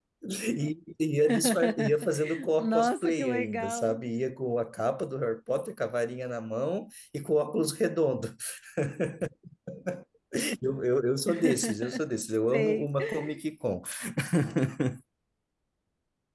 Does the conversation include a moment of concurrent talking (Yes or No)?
Yes